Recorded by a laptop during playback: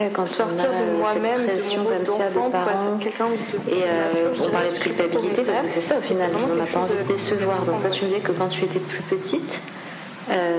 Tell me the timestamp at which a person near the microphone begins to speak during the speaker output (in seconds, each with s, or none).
none